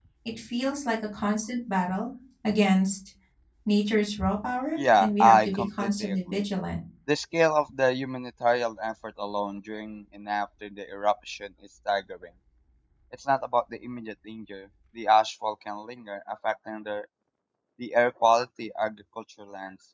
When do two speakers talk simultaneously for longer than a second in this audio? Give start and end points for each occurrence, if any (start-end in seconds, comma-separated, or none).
4.8-6.4